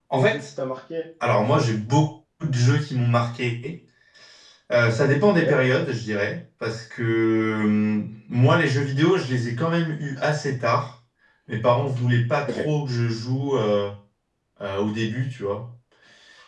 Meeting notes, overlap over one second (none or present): none